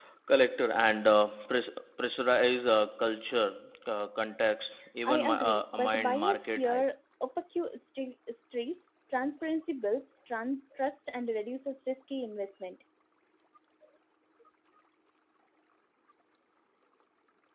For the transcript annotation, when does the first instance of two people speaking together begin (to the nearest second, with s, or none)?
5 s